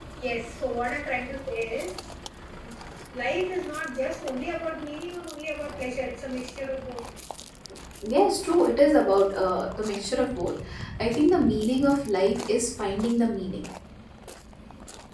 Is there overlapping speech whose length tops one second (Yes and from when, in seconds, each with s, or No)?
No